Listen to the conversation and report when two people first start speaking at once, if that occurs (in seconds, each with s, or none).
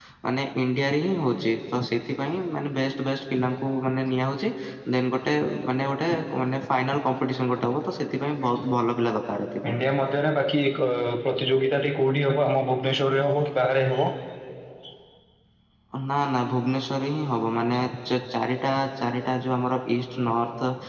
none